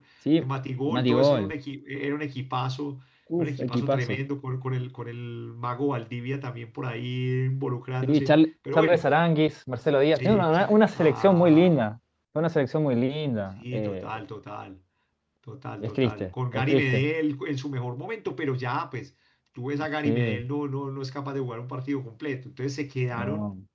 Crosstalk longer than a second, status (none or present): present